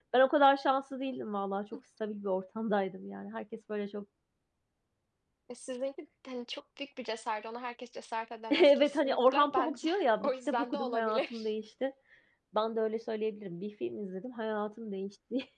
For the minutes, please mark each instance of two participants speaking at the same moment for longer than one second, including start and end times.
8.5-11.5

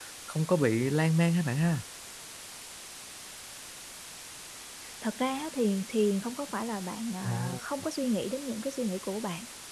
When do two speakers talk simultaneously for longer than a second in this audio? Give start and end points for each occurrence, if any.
none

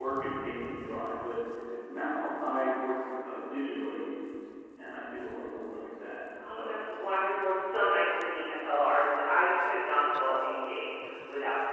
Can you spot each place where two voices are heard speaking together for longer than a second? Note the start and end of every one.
none

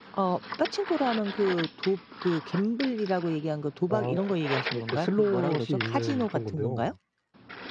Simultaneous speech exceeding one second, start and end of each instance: 4.7-6.9

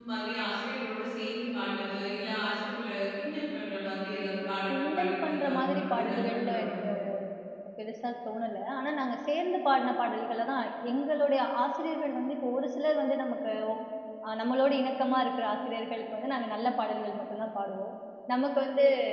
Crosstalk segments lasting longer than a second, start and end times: 4.7-6.7

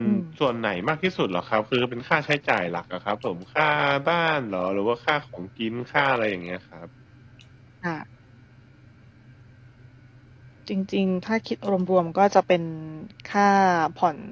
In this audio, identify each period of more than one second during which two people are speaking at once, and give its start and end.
none

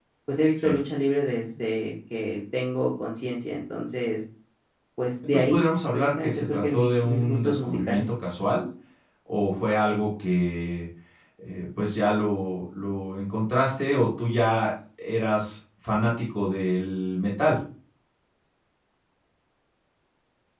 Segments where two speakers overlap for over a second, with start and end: 5.3-8.1

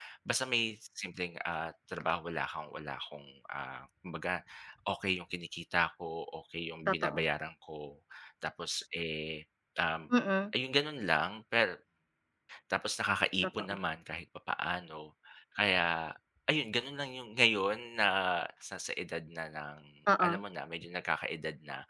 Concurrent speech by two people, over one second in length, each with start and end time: none

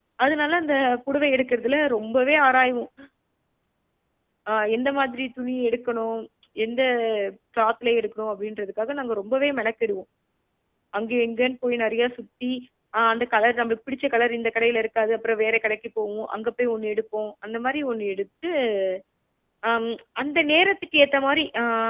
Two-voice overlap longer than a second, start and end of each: none

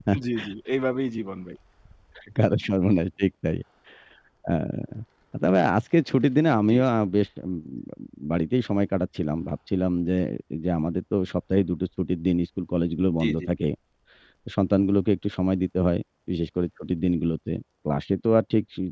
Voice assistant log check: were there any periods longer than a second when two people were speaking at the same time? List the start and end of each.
none

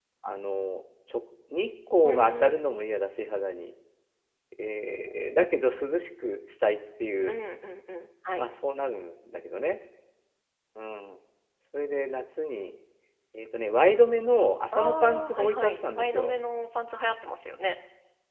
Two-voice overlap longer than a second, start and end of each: 14.7-16.3

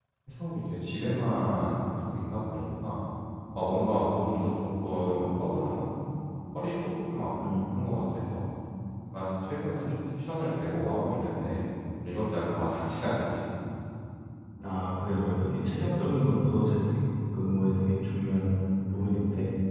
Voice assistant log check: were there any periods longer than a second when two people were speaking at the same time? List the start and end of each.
none

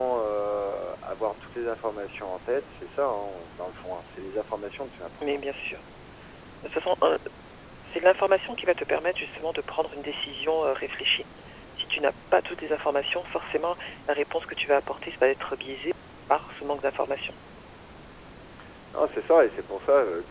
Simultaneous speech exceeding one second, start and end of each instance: none

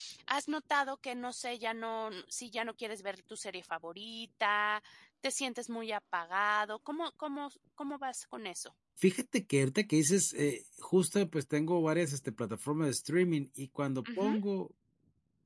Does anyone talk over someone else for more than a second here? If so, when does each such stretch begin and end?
none

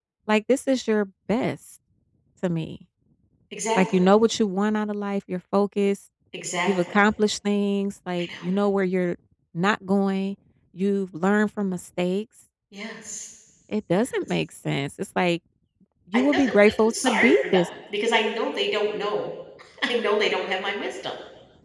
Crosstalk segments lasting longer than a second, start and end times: 16.1-17.7

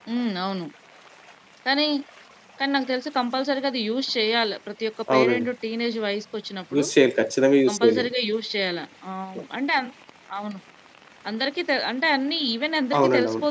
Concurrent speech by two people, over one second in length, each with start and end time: none

